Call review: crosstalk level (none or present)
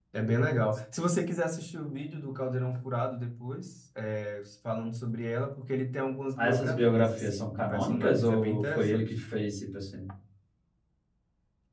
present